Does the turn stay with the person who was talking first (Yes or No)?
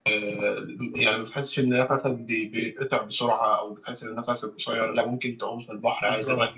Yes